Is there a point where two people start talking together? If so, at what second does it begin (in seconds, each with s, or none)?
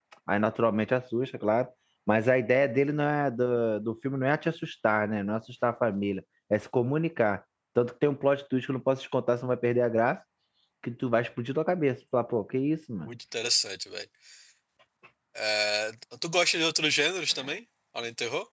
none